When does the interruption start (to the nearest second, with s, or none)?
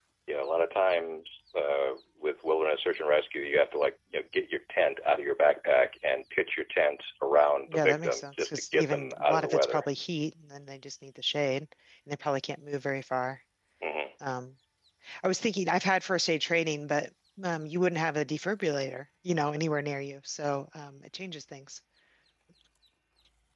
8 s